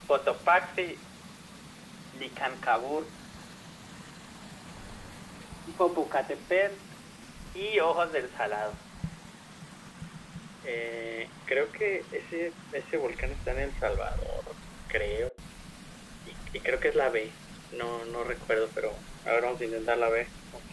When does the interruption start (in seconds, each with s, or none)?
none